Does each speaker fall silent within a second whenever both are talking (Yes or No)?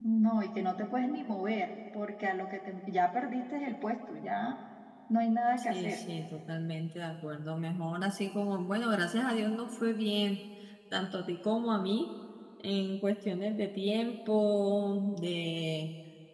Yes